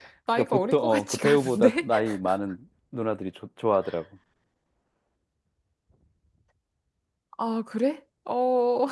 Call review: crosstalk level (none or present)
present